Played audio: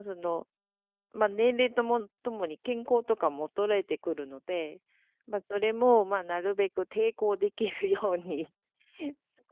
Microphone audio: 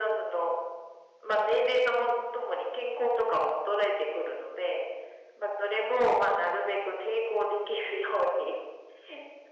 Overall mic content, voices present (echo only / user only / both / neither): echo only